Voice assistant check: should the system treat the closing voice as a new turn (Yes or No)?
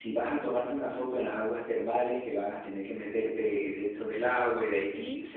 No